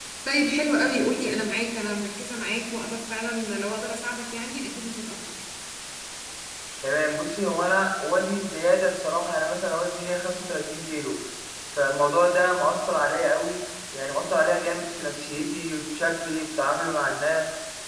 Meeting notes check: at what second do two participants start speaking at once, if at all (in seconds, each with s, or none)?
none